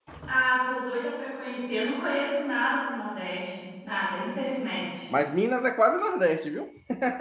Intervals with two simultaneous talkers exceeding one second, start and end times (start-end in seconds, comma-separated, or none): none